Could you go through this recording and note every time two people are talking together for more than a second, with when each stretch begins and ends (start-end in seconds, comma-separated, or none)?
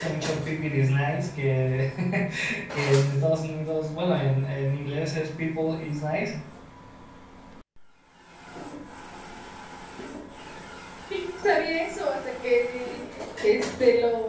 none